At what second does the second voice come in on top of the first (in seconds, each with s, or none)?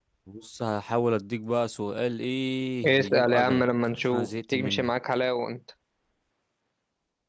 2.8 s